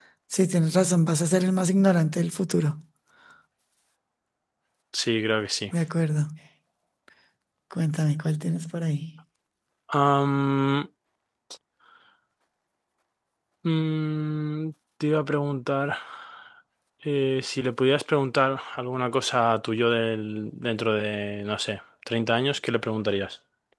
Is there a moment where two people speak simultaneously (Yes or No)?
No